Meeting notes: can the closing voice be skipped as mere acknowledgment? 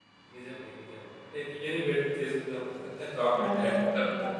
No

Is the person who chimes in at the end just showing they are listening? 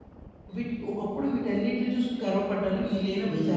No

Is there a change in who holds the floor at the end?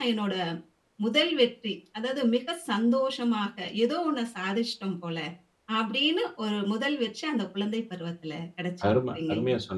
Yes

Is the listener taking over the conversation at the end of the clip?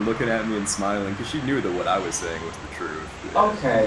Yes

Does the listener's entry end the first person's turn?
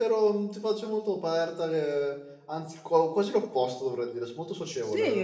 Yes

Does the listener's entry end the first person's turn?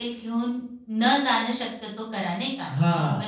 Yes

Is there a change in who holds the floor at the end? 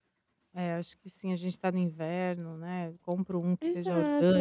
Yes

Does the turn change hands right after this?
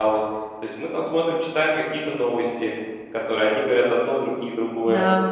Yes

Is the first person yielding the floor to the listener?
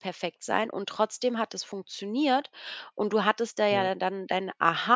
No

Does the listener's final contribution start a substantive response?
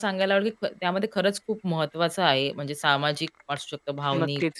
No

